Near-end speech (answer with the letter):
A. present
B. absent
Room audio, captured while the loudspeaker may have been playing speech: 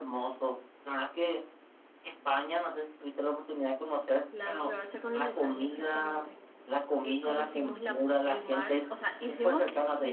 A